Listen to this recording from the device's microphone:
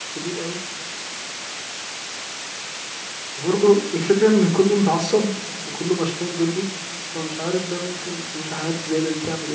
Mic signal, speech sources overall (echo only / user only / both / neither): user only